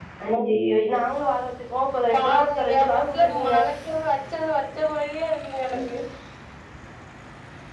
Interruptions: present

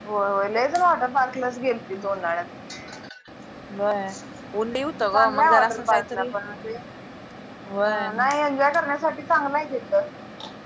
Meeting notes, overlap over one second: present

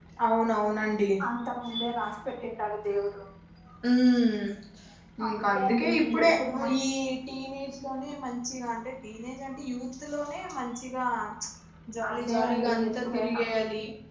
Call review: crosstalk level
present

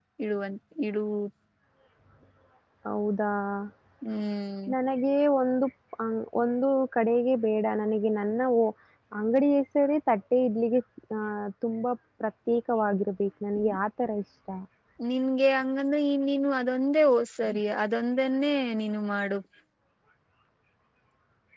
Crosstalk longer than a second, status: none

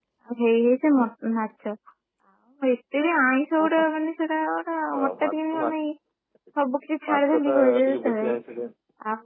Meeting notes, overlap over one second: present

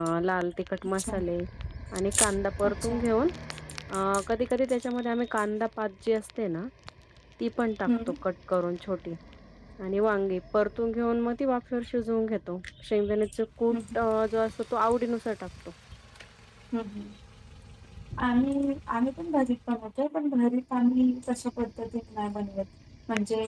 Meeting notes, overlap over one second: none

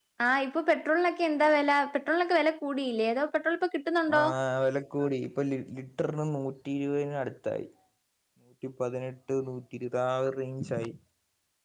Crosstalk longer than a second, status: none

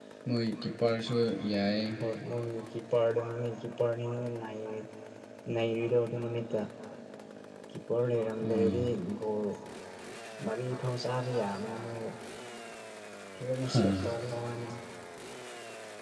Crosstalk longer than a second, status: none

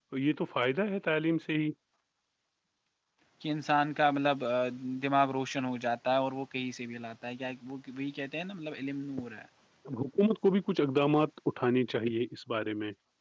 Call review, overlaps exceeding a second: none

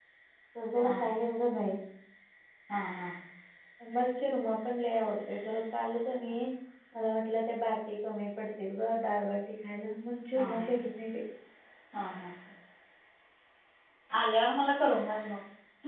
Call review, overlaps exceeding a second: none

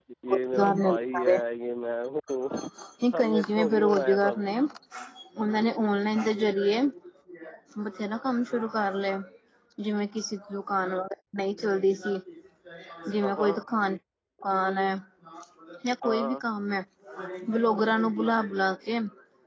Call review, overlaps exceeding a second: present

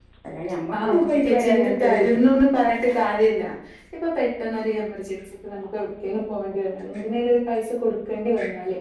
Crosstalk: present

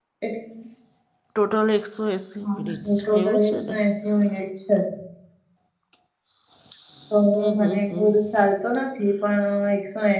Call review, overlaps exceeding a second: present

